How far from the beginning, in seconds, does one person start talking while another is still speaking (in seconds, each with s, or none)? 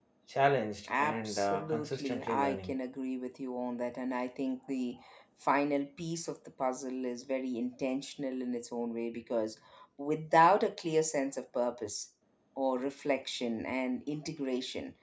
0.9 s